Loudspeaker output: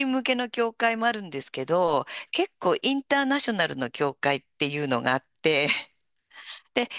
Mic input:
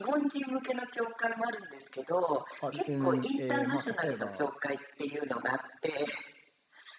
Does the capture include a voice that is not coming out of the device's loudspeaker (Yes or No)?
Yes